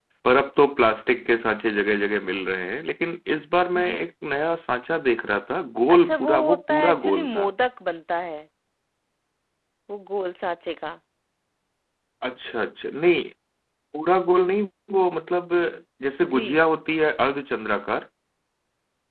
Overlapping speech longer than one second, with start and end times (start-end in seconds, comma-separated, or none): 5.9-7.5